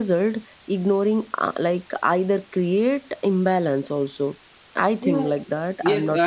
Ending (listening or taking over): taking over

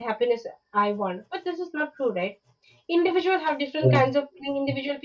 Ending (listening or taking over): listening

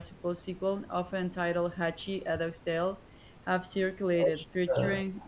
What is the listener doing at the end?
listening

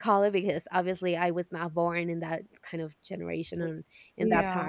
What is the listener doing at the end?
listening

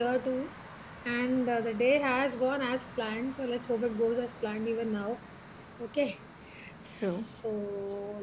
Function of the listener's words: listening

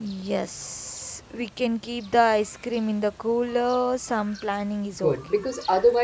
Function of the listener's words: taking over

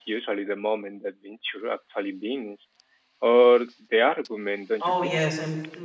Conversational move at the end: taking over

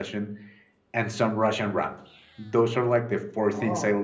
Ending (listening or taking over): listening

